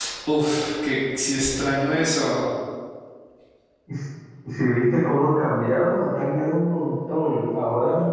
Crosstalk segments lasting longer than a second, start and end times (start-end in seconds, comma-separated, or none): none